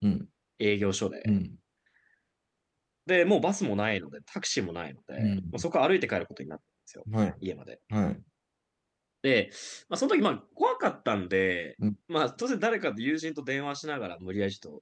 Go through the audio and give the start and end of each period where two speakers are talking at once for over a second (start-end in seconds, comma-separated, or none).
none